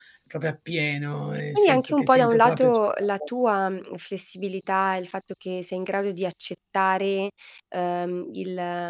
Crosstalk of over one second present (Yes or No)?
Yes